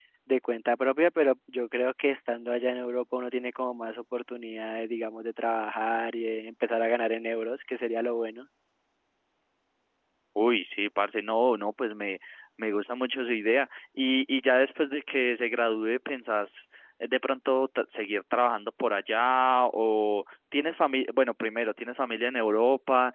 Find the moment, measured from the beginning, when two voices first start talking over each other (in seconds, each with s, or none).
none